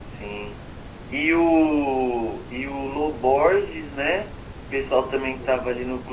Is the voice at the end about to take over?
No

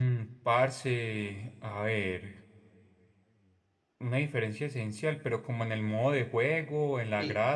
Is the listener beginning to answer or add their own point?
Yes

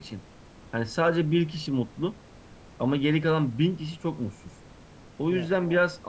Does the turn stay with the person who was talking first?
Yes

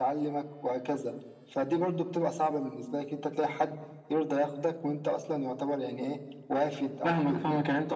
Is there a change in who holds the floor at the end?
Yes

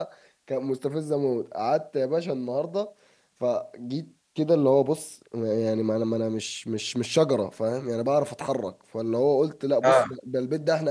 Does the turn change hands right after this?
No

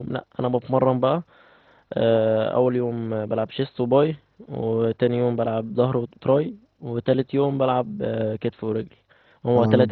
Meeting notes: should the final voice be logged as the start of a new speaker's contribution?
No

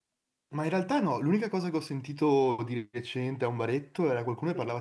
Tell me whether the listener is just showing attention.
Yes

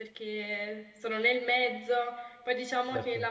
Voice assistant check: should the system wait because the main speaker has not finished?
Yes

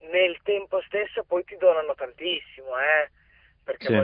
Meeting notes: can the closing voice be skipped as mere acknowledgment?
Yes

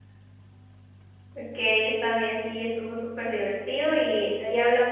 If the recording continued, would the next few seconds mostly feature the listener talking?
No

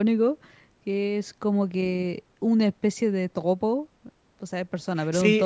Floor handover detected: Yes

